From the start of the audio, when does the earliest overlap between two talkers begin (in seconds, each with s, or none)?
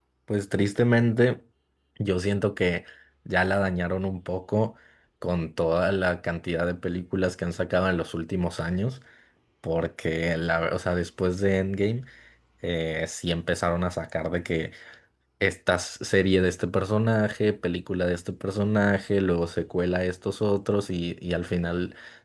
none